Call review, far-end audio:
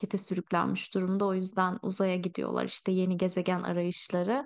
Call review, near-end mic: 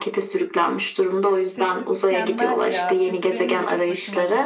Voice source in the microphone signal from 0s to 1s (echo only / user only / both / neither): echo only